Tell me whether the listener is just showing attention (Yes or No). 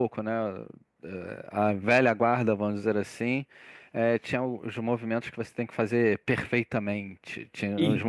Yes